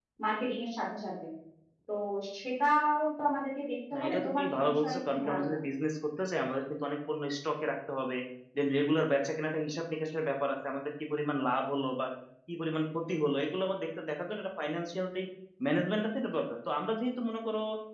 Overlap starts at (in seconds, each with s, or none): 3.9 s